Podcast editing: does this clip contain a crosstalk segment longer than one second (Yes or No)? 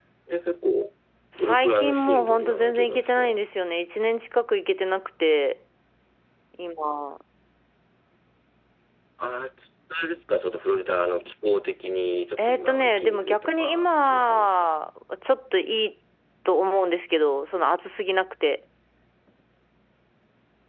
Yes